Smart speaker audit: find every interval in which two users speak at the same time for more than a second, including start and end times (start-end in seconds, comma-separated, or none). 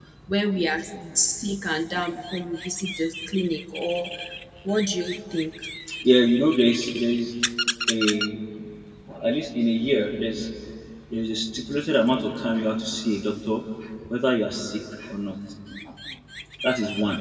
none